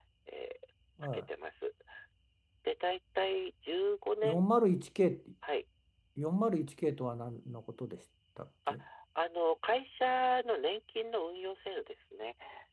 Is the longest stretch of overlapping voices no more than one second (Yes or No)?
Yes